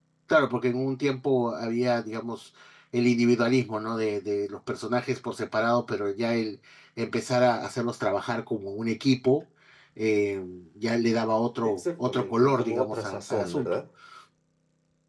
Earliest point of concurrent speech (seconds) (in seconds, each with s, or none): 11.6 s